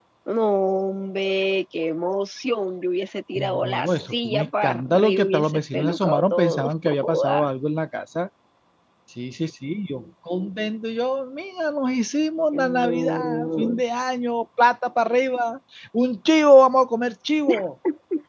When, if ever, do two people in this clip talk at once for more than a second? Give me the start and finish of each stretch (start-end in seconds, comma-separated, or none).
3.4-7.5, 12.5-13.8